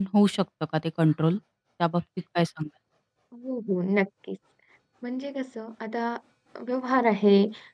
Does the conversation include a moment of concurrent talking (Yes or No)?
No